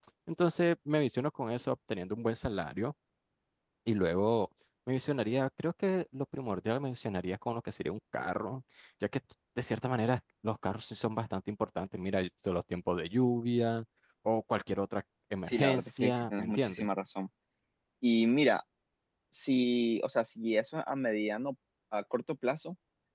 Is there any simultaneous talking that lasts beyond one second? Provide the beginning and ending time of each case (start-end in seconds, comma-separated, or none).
15.4-16.9